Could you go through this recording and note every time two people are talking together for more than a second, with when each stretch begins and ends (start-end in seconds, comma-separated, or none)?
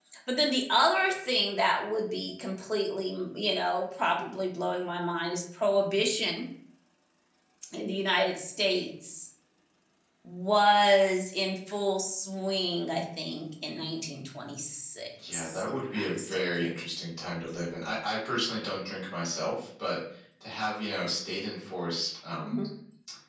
15.3-16.8